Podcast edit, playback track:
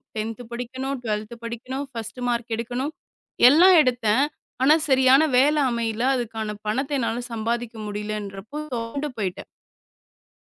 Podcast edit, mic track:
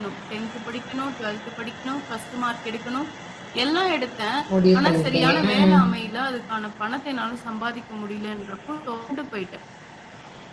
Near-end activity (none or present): present